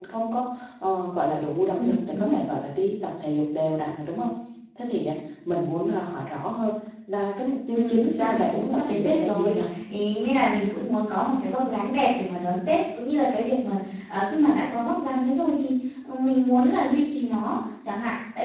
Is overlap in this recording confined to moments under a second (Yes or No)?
No